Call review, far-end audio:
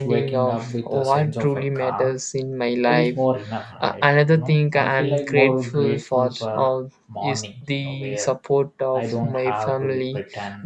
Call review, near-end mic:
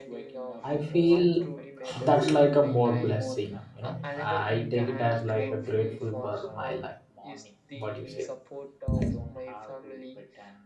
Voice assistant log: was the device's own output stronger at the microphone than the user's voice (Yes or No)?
No